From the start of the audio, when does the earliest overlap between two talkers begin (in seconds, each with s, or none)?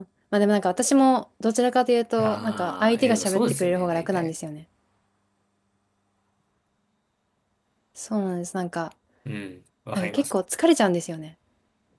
2.2 s